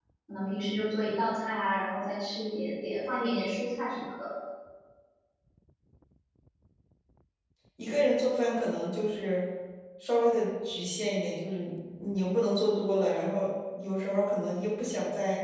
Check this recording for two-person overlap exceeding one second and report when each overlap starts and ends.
none

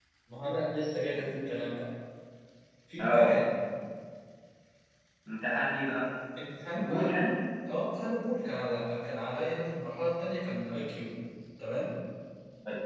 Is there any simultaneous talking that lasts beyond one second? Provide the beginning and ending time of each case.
none

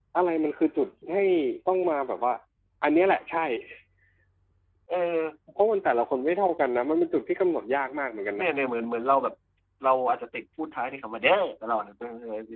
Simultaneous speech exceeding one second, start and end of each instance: none

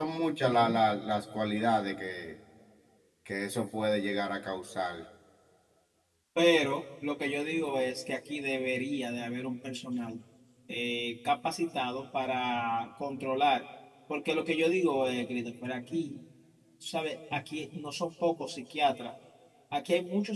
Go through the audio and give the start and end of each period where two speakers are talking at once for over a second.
none

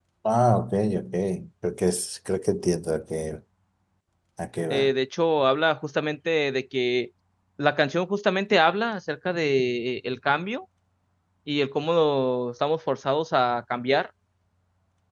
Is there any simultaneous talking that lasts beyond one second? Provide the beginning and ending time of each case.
none

